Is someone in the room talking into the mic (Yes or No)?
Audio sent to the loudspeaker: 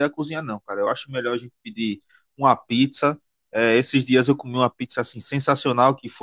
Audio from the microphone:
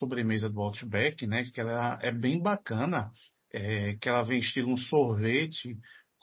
Yes